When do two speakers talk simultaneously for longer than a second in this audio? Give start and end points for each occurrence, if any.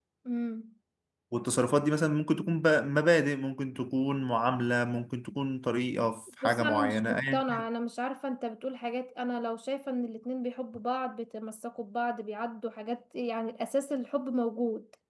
6.4-7.6

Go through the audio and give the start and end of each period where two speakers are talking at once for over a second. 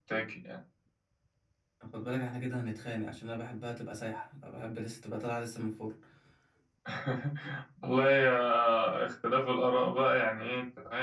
none

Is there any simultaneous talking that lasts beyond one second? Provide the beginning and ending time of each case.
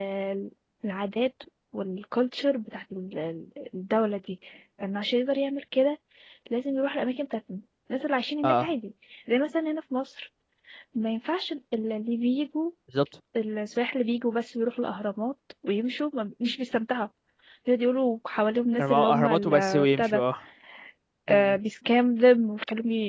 18.8-20.2

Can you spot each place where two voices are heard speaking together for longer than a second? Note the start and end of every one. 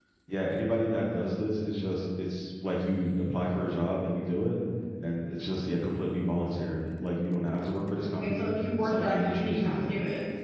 8.2-9.9

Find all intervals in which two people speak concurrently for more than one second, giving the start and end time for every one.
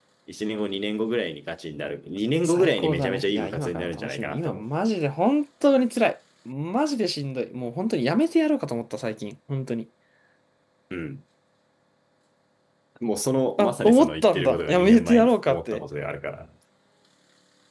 2.4-4.6, 13.6-15.8

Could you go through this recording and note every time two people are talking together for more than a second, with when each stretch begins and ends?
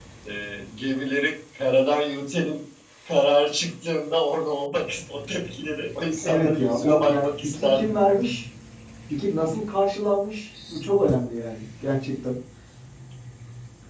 6.2-8.0

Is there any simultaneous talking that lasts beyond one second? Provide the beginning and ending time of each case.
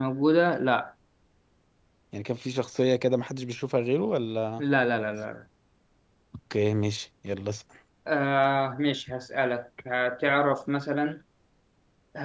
none

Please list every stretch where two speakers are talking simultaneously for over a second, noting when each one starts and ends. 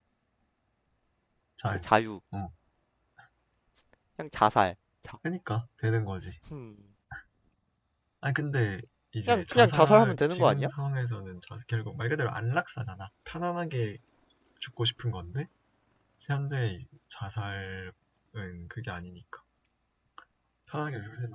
9.3-10.7

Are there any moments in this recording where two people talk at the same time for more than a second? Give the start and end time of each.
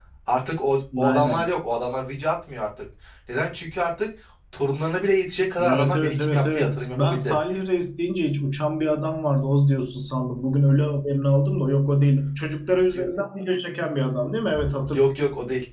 5.6-7.4

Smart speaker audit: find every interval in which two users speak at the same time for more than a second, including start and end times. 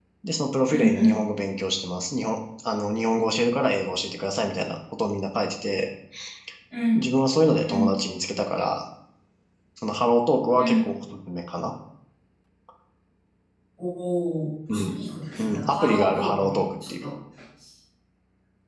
15.4-17.1

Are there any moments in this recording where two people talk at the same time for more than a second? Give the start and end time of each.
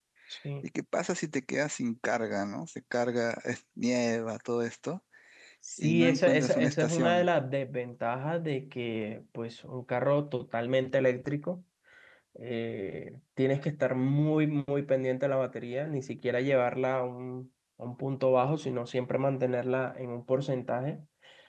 5.8-7.3

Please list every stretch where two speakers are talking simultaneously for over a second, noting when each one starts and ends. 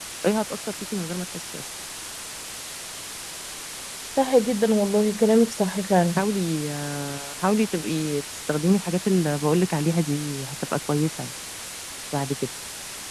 none

